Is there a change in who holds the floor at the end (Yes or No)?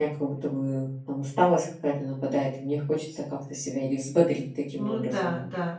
Yes